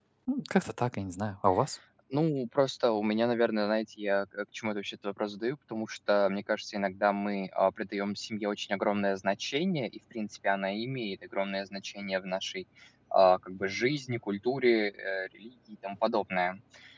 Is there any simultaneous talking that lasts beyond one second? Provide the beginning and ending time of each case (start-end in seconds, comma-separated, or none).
none